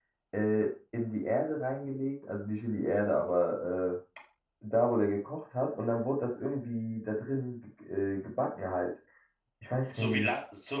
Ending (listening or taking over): taking over